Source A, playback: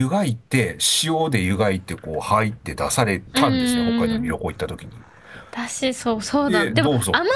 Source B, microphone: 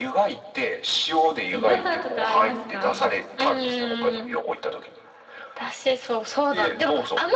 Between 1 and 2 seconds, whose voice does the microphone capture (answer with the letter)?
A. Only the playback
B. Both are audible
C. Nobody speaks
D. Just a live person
B